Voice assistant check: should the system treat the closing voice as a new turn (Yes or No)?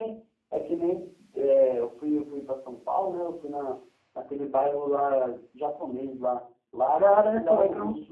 No